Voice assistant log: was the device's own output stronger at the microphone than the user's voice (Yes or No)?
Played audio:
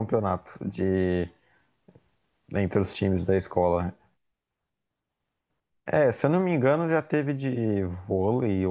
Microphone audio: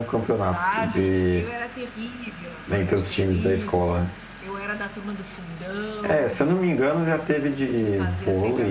Yes